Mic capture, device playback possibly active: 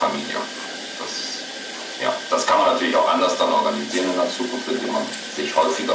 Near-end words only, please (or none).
none